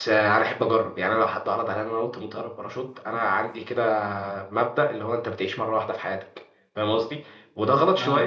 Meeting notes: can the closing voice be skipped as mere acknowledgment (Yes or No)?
Yes